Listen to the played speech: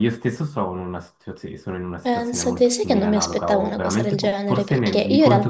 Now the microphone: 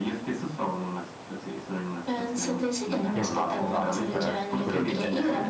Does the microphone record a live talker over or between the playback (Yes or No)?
Yes